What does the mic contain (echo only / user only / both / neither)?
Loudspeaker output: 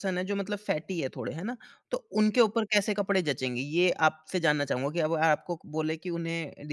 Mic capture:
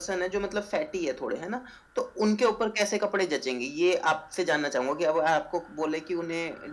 echo only